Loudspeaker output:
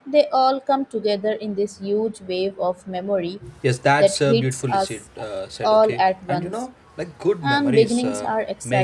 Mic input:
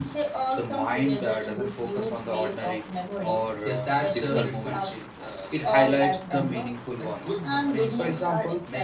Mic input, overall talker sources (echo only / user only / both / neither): both